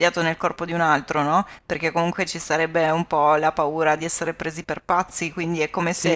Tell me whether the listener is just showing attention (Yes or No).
Yes